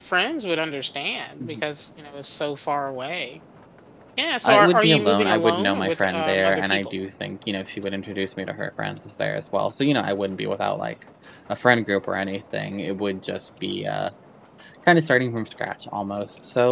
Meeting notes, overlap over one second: present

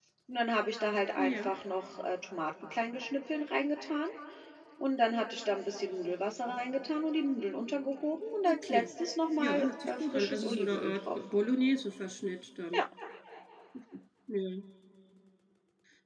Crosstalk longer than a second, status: present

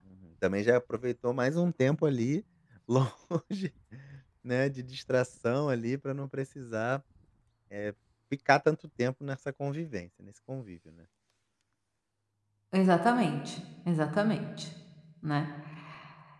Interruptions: none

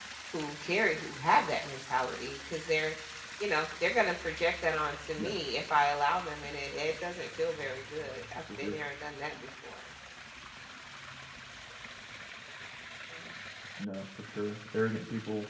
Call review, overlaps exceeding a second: none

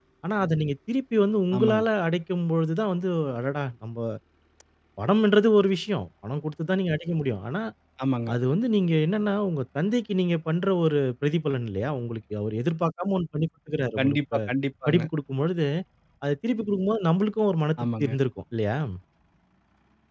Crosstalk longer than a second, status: none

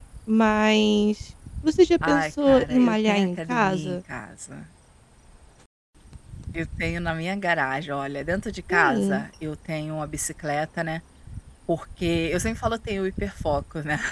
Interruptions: present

